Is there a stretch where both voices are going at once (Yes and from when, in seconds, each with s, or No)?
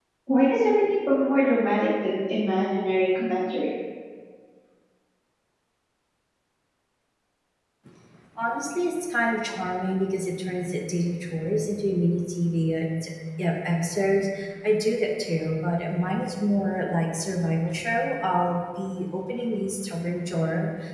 No